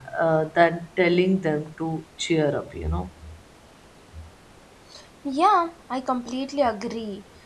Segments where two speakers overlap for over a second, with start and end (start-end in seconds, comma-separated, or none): none